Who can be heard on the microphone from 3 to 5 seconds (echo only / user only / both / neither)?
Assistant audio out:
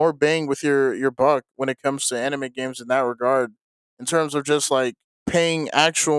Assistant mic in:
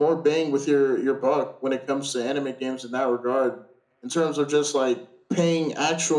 echo only